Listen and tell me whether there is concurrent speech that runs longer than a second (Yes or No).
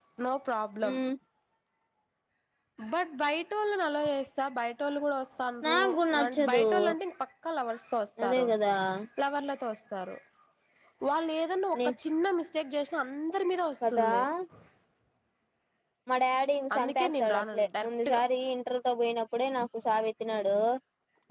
Yes